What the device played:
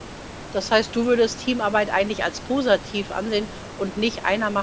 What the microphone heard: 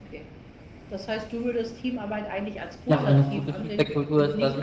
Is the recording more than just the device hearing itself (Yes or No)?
Yes